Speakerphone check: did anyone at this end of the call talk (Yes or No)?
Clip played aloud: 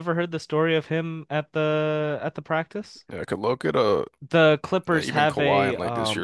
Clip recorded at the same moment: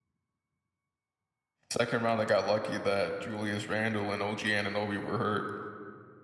Yes